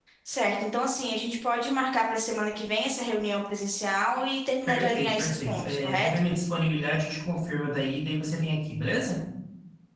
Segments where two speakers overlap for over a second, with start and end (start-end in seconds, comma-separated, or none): 4.7-6.3